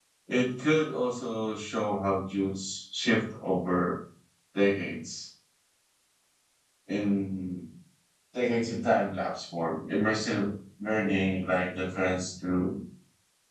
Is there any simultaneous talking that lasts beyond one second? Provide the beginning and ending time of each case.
none

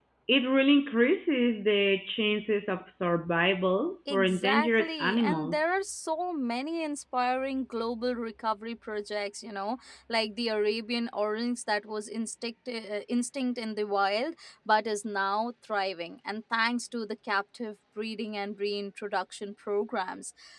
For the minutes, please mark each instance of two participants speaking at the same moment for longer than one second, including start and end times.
4.1-5.5

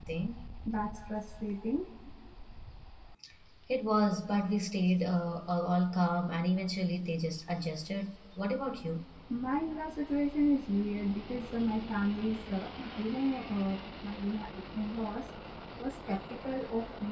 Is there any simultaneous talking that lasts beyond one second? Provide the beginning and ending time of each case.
none

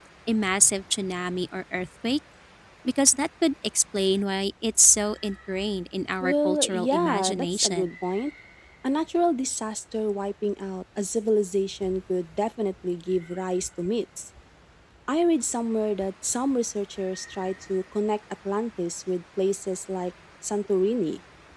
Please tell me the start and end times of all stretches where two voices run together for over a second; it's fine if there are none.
6.2-7.9

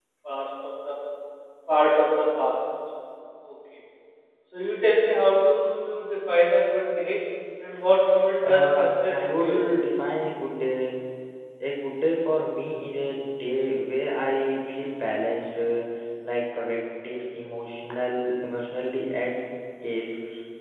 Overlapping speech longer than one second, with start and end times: 8.4-9.6

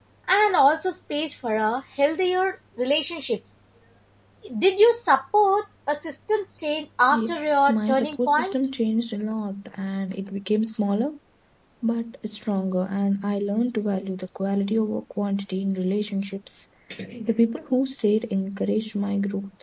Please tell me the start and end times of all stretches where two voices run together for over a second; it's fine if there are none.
7.1-8.5

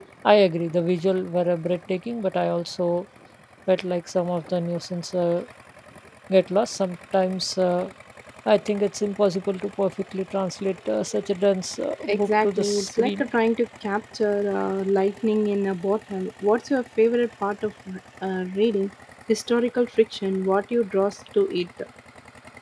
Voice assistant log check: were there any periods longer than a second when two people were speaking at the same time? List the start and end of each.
12.1-13.3

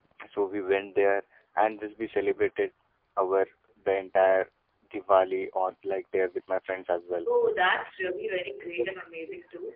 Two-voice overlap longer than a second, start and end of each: none

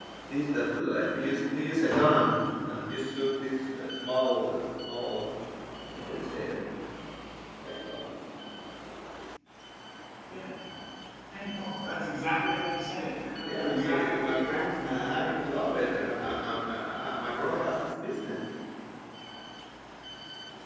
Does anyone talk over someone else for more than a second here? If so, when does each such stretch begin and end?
13.4-15.2

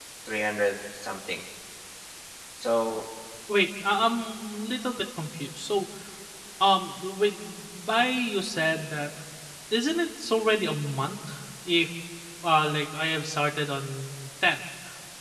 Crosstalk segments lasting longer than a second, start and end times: none

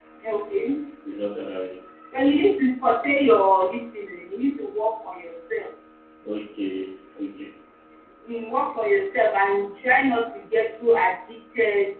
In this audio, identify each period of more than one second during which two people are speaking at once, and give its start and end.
none

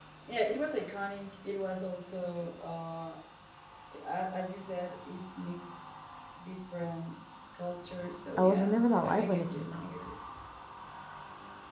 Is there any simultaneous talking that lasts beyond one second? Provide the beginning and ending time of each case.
8.4-10.1

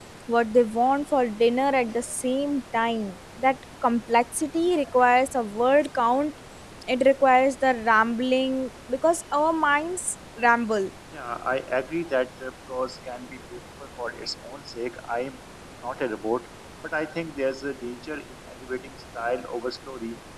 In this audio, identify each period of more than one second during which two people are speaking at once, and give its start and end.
none

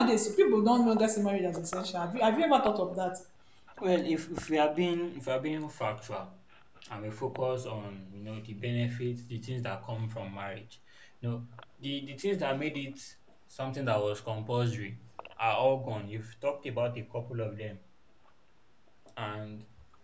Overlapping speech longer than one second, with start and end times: none

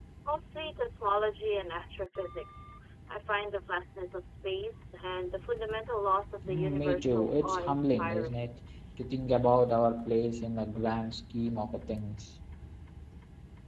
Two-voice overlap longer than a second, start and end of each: 6.5-8.5

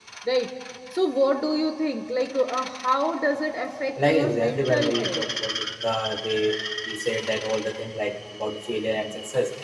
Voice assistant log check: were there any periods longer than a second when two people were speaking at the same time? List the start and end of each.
4.0-5.2

